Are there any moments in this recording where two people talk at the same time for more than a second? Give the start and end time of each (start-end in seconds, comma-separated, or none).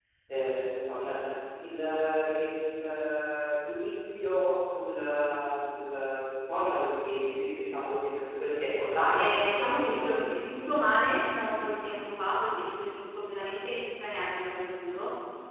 9.2-10.5